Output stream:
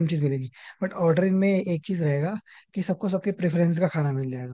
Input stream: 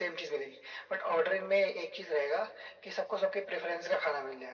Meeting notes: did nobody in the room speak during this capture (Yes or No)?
Yes